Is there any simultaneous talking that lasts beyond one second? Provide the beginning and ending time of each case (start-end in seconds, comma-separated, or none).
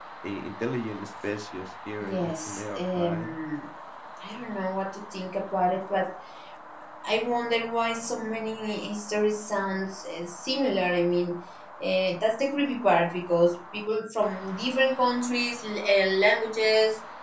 2.0-3.3